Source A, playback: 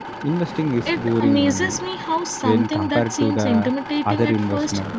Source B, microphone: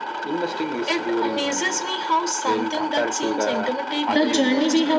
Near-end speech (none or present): present